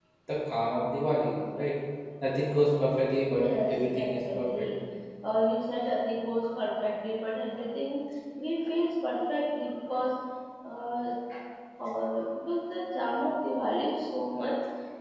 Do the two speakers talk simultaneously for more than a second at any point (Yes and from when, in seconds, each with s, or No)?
Yes, from 3.3 s